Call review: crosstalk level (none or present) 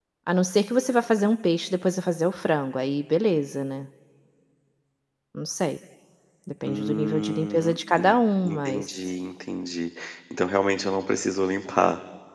present